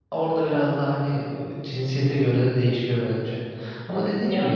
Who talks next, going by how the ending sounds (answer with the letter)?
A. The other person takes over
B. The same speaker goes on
B